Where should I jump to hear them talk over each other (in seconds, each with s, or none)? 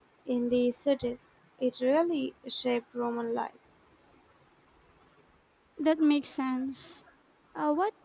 none